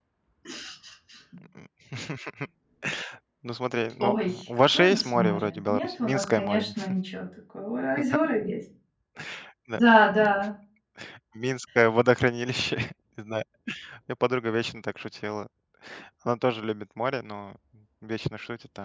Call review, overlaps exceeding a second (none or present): present